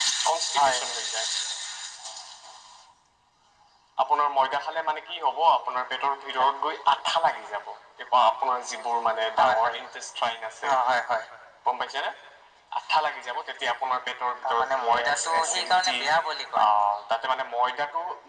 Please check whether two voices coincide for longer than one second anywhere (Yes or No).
Yes